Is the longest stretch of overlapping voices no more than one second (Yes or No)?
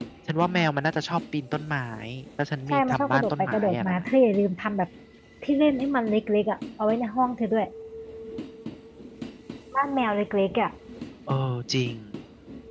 No